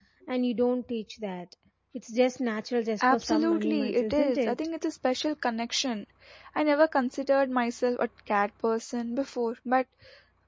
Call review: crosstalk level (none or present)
present